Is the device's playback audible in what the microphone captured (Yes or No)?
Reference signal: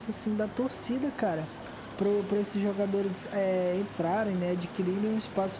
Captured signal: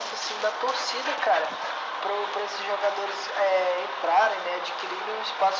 Yes